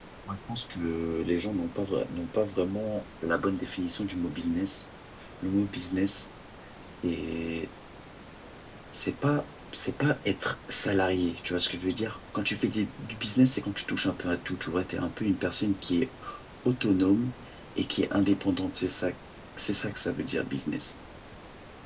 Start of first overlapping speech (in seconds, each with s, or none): none